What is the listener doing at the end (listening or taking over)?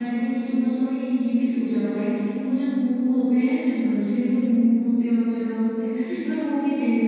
listening